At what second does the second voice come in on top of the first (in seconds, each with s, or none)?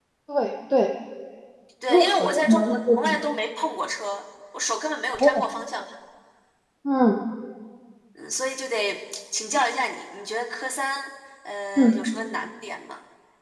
1.9 s